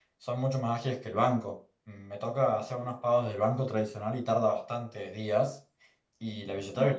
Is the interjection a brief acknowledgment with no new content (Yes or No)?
Yes